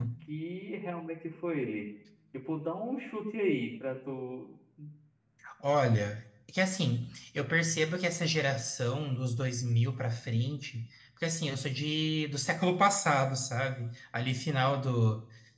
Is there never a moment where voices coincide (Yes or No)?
Yes